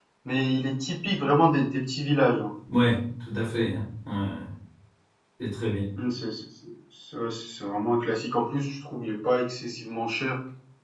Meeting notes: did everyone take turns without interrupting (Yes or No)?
Yes